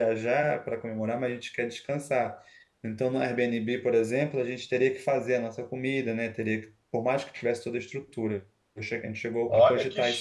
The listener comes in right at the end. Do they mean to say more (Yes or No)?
Yes